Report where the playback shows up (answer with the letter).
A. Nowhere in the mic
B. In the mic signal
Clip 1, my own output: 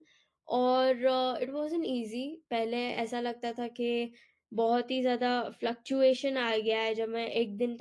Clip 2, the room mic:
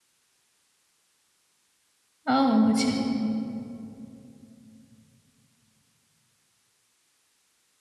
A